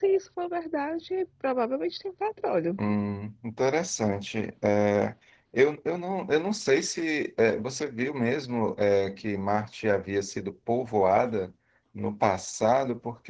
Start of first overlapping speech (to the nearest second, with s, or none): none